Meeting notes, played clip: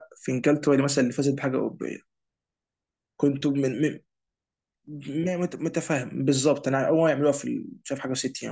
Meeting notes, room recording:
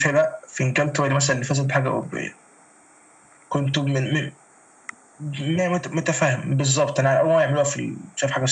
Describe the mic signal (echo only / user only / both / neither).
echo only